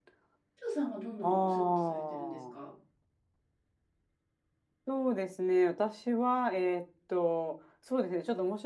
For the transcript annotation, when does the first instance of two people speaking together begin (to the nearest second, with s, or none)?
1 s